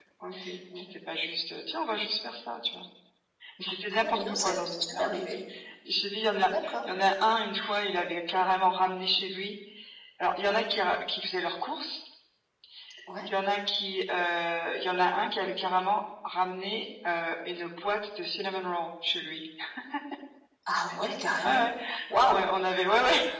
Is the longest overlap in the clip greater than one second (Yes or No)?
Yes